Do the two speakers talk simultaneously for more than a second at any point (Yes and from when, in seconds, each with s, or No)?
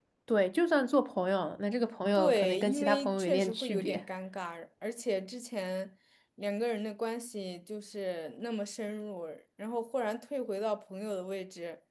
Yes, from 2.1 s